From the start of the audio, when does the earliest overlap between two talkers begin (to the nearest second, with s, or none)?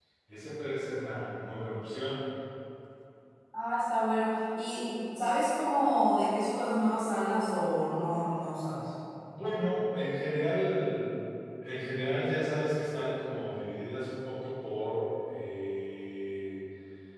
none